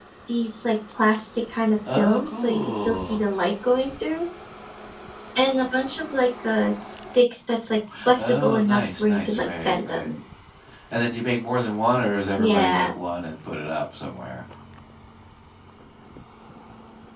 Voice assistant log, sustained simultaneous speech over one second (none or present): present